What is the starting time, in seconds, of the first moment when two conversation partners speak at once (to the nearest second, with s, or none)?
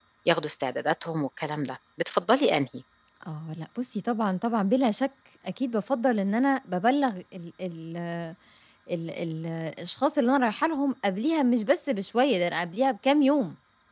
none